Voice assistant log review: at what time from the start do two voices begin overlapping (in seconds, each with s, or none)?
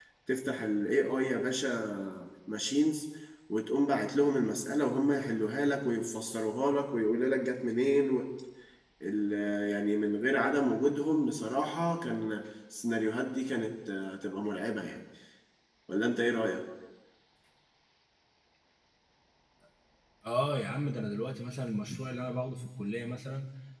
none